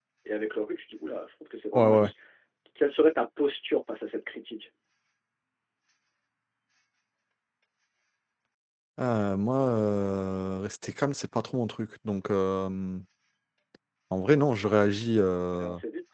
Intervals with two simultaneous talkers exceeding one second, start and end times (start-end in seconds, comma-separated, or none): none